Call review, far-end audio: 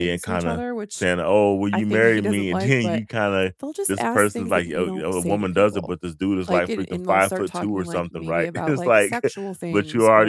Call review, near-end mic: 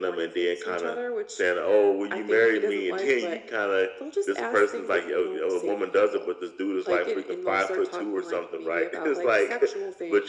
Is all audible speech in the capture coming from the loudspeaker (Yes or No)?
Yes